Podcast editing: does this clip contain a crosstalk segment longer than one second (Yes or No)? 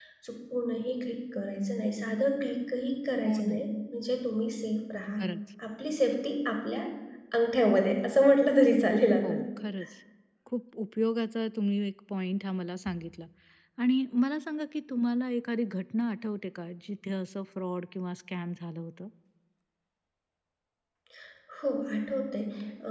No